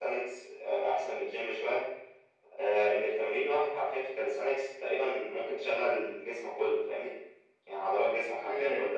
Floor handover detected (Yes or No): No